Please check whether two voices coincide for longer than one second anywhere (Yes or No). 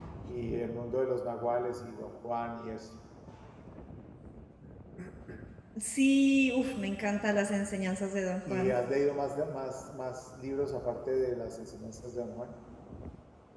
No